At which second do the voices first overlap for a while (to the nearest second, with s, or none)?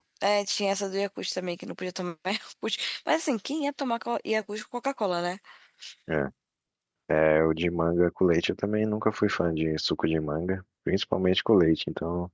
none